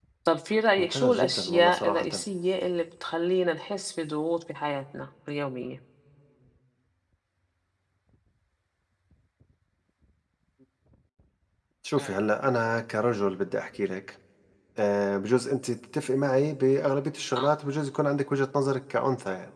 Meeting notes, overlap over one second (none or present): present